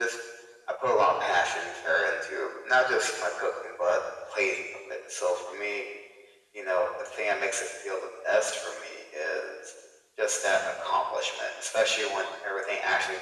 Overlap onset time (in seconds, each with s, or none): none